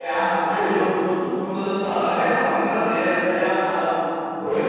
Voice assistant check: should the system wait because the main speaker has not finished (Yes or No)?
Yes